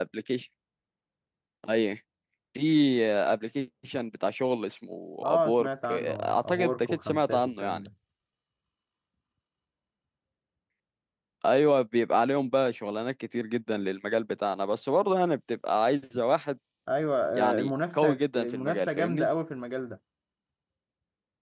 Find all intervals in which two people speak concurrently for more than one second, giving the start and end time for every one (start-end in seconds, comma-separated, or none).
5.2-7.8, 17.3-19.3